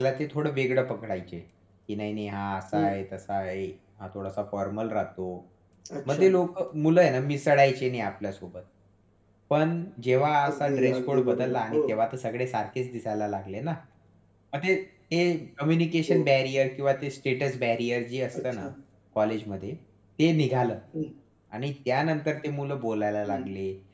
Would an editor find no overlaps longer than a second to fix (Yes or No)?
No